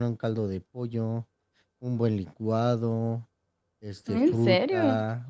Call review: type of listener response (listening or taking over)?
listening